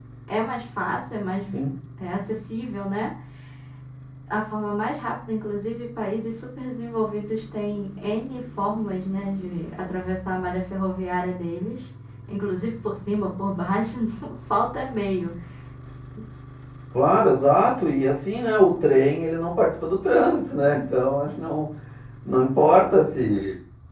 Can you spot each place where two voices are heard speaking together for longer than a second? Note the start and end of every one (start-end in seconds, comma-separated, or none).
none